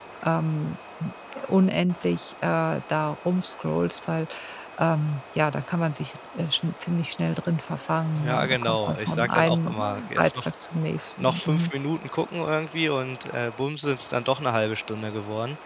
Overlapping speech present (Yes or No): Yes